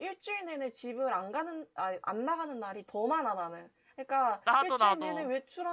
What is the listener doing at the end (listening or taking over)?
listening